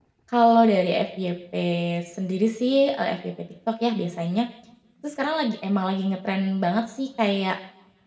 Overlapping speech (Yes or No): No